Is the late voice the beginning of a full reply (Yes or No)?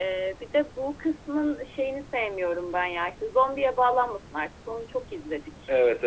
Yes